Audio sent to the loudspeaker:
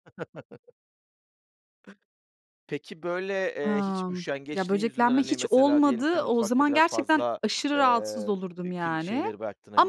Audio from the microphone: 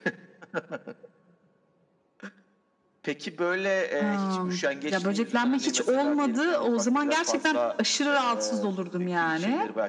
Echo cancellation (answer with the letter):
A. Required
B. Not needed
A